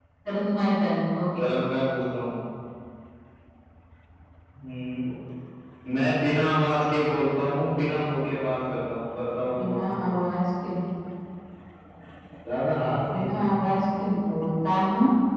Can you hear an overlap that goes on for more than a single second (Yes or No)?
No